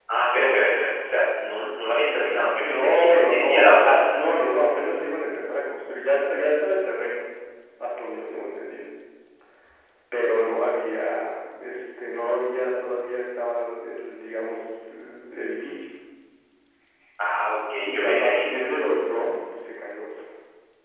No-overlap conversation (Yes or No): No